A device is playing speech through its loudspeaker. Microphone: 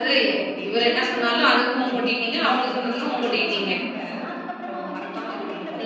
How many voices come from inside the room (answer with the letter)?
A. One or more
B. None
A